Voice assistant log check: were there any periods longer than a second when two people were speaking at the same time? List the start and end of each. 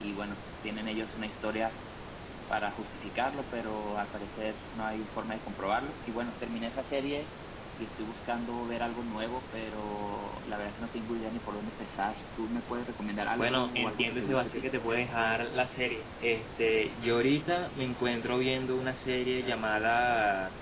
13.4-14.6

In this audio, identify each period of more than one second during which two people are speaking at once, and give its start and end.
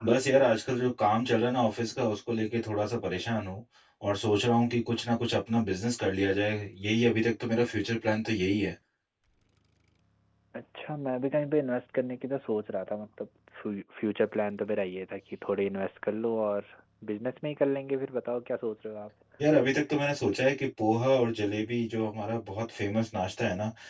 none

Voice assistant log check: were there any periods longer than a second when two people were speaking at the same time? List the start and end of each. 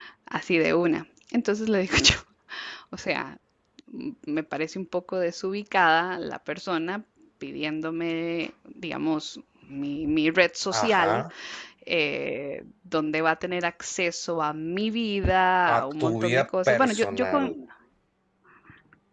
15.7-17.4

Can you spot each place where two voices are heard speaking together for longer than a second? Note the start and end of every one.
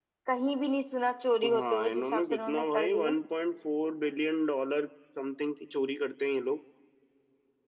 1.5-3.2

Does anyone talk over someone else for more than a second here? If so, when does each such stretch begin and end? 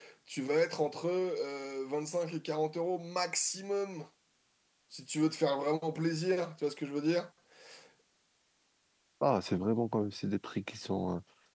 none

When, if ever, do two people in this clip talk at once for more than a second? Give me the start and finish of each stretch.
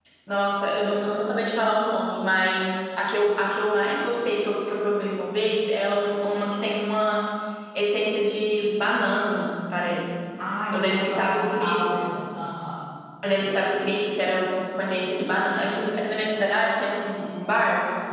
10.7-12.0

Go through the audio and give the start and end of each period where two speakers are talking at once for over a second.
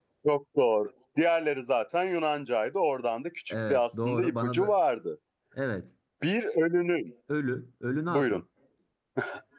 3.5-4.8

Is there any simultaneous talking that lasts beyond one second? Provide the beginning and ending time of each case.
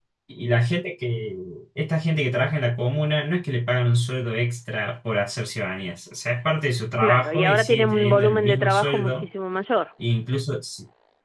7.0-9.2

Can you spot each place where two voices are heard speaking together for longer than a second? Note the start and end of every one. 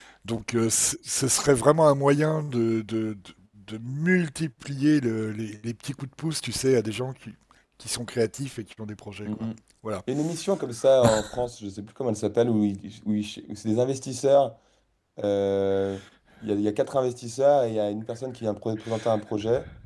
none

